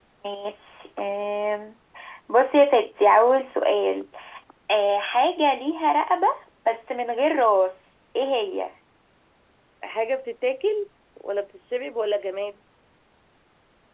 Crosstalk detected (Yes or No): No